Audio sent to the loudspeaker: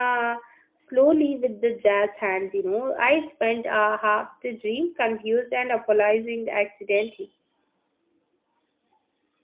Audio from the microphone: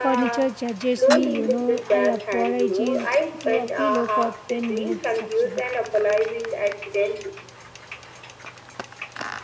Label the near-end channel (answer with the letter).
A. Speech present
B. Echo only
A